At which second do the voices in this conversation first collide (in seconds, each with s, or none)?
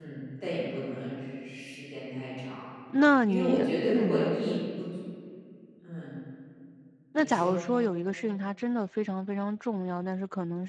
3.3 s